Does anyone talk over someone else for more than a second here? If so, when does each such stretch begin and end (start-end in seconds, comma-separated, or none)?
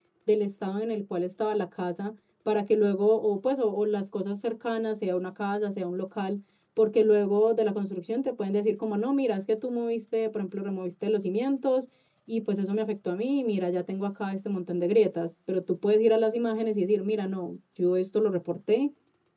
none